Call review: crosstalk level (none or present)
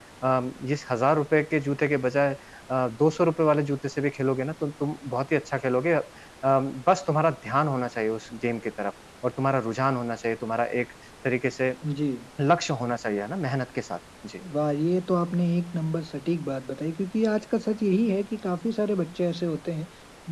none